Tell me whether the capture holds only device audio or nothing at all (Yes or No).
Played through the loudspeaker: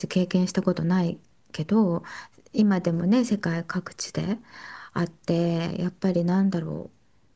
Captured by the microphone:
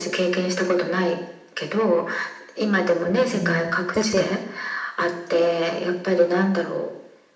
No